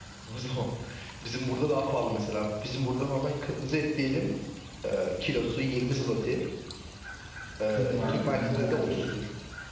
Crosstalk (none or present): present